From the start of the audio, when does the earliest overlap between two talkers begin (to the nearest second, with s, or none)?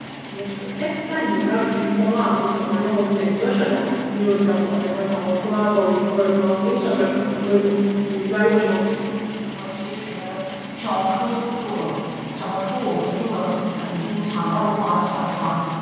none